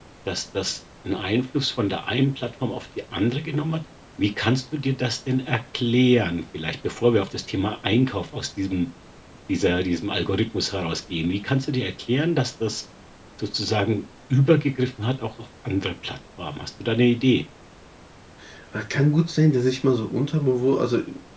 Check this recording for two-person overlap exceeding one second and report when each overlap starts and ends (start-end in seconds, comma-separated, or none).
none